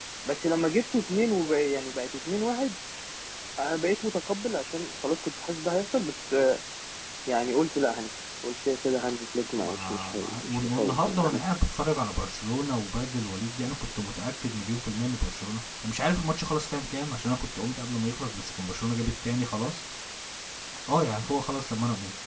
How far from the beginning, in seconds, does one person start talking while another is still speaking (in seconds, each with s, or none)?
9.6 s